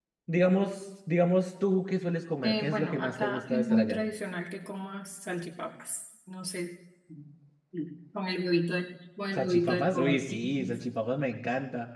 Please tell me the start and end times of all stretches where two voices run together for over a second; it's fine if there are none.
2.4-4.0, 9.3-10.8

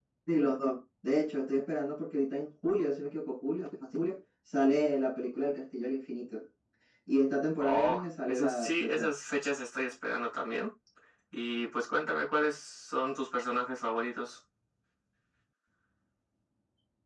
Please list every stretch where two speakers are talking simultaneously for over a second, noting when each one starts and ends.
7.6-9.1

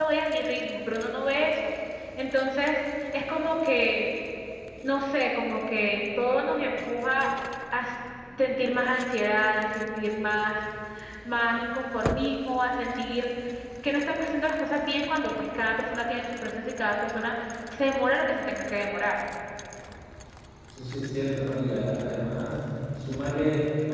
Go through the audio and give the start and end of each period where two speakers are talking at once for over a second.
none

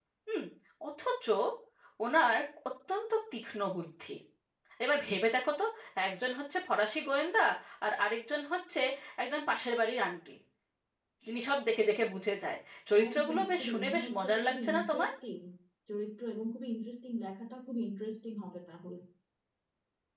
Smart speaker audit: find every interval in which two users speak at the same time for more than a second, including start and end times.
13.1-15.1

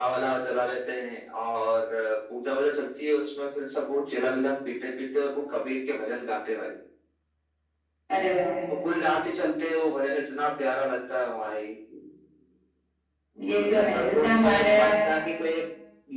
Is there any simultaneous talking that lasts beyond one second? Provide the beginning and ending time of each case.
13.6-15.0

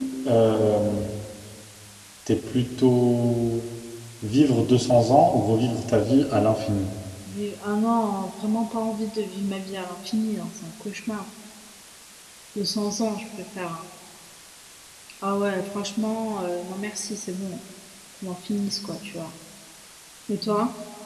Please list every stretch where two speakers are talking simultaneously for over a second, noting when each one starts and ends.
none

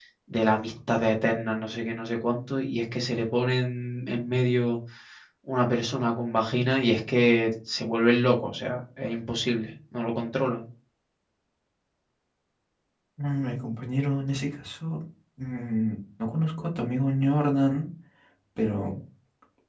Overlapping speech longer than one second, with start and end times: none

